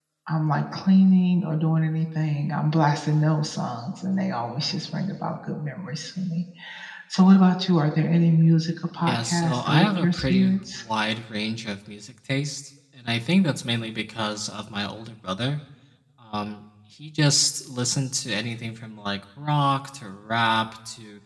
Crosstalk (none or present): present